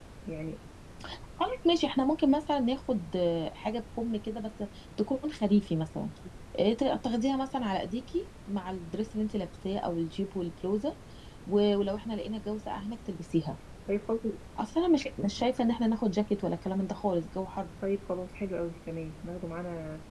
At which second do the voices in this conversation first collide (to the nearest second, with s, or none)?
none